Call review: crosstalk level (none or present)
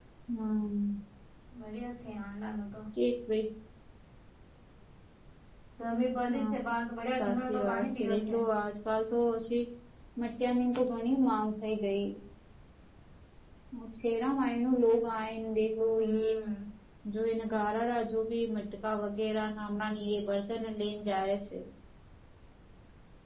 present